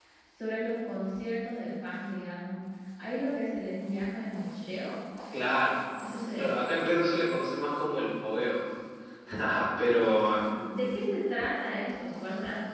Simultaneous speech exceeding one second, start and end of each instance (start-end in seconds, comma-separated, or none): none